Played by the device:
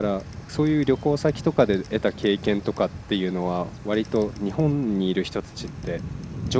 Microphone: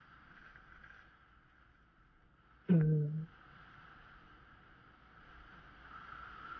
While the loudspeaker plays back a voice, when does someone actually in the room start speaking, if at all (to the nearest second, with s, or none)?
3 s